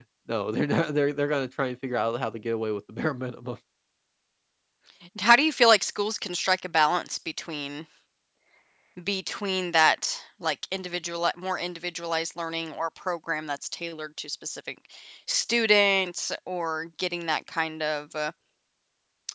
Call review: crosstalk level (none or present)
none